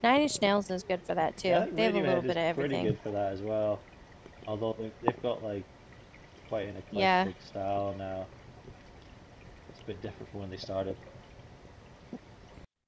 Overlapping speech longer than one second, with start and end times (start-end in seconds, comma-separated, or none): 1.4-2.9